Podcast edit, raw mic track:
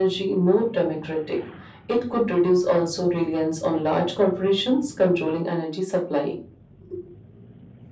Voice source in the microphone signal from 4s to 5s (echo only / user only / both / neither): echo only